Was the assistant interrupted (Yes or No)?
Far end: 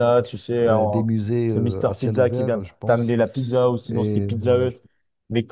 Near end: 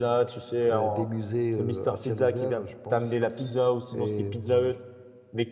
No